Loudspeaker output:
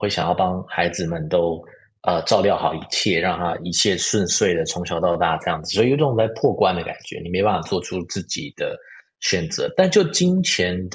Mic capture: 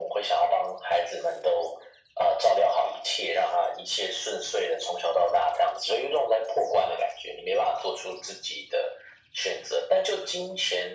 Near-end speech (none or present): none